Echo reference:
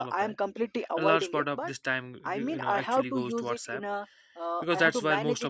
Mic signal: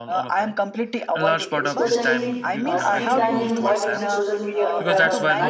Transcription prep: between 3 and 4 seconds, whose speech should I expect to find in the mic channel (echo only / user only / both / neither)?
both